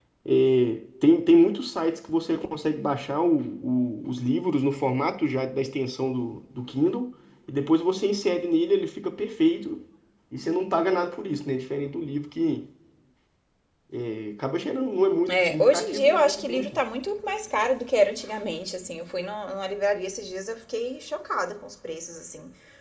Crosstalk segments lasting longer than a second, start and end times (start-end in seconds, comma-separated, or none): 15.3-16.8